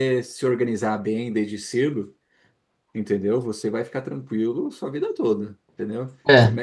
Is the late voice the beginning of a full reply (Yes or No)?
No